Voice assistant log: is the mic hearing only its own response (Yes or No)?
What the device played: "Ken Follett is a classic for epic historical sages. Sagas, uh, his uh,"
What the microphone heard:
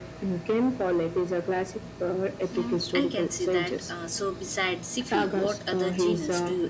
No